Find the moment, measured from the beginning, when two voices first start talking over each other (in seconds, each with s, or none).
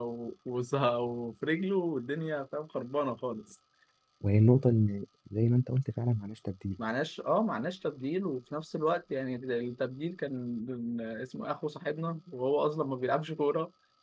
none